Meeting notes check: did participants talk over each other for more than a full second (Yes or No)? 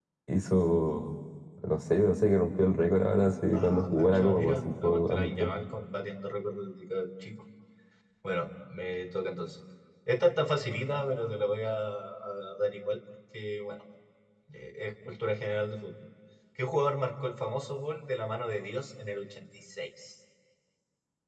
Yes